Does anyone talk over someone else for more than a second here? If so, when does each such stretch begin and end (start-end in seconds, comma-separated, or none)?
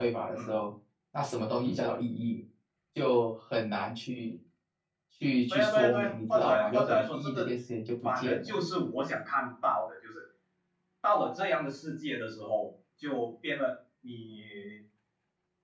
5.5-7.5